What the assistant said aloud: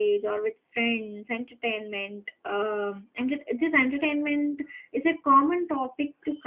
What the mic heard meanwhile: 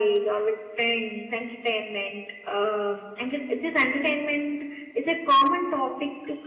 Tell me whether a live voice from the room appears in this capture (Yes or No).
No